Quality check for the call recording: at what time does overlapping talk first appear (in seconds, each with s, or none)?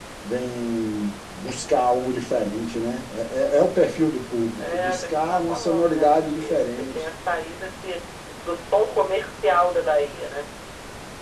4.6 s